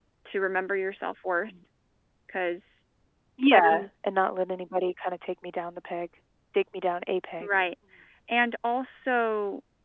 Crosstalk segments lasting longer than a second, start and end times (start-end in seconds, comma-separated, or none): none